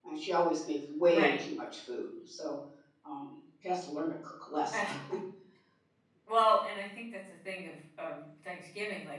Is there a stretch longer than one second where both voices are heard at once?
No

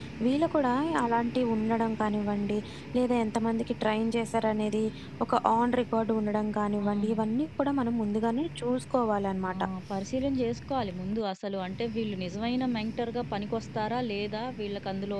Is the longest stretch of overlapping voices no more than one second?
Yes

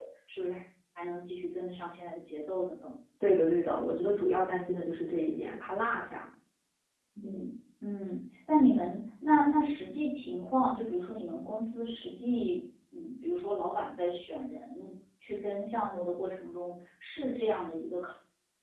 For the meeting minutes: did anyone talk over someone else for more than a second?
No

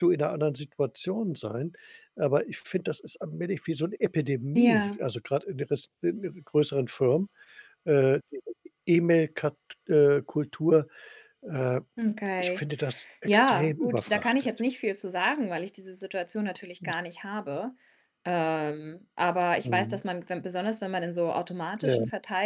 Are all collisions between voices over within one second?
No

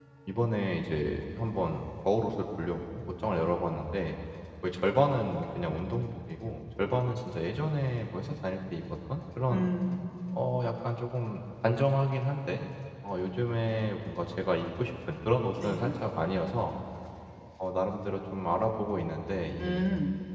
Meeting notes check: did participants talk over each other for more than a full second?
No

